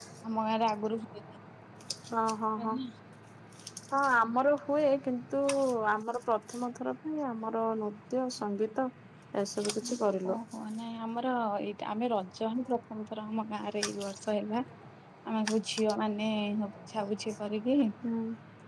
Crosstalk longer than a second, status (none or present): none